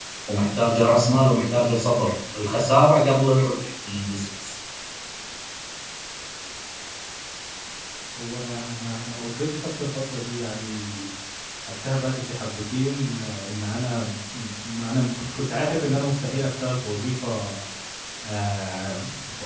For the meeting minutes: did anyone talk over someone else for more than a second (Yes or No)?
No